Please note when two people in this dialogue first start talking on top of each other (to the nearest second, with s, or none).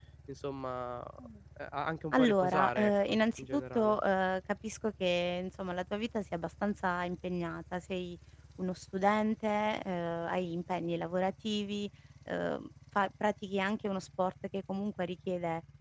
2 s